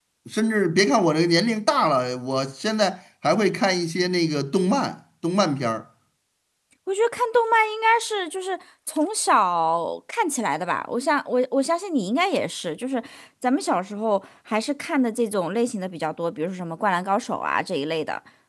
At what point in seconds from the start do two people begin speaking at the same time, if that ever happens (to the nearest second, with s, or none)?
none